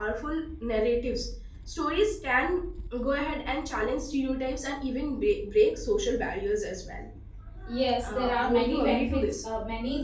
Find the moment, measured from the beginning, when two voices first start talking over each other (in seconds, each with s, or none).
8.0 s